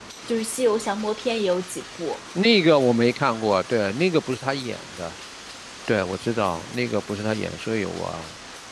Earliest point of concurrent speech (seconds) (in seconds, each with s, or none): none